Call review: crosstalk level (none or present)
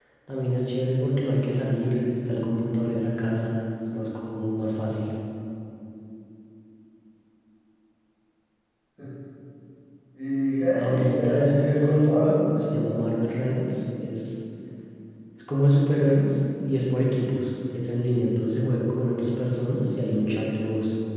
present